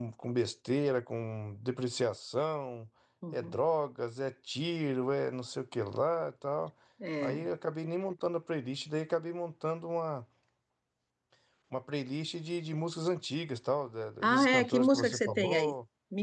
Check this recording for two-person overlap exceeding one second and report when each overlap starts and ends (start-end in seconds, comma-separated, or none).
14.2-15.7